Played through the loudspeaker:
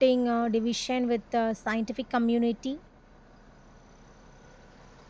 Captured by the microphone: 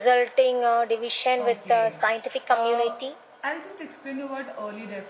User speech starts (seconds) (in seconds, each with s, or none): 1.4 s